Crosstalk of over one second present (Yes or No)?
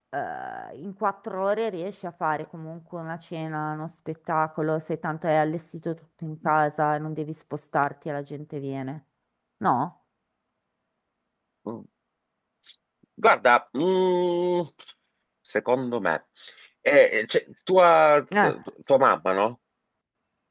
No